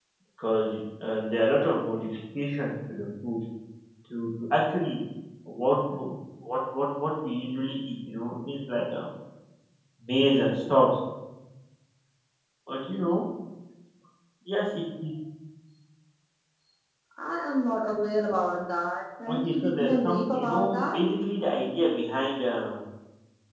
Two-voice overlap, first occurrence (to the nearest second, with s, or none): 19 s